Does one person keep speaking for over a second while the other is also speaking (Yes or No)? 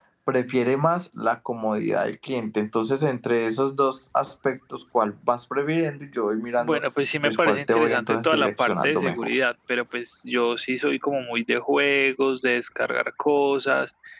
Yes